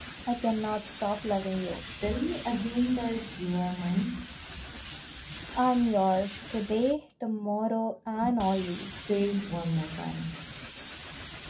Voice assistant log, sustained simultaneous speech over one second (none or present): none